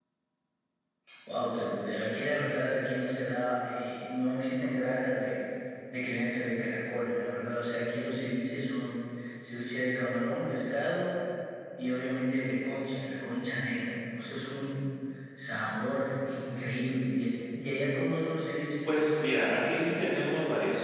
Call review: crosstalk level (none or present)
none